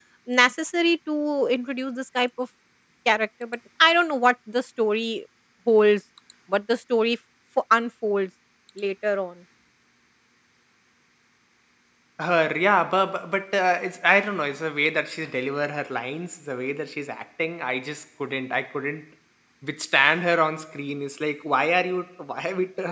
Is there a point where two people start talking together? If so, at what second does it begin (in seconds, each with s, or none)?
none